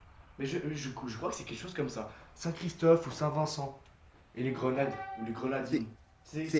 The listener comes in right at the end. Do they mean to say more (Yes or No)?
Yes